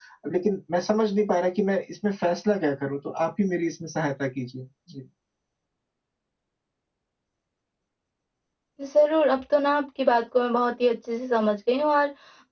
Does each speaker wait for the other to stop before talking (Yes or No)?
Yes